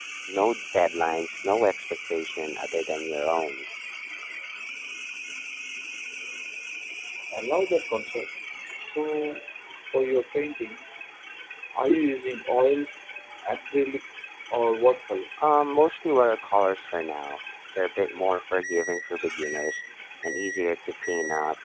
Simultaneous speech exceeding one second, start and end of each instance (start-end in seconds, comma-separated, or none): none